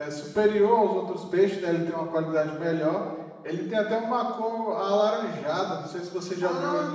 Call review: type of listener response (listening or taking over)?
taking over